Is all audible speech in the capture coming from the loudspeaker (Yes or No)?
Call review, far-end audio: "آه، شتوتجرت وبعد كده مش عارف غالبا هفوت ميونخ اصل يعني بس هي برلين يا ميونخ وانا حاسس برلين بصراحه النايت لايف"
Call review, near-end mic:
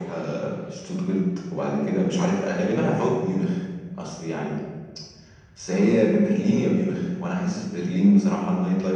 Yes